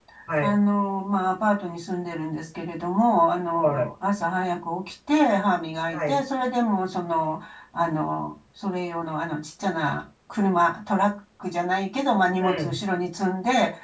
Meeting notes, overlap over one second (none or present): none